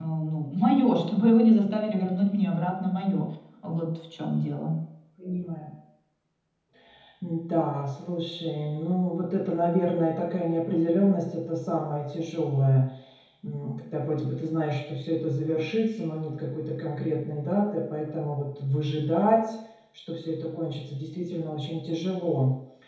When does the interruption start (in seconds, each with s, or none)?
none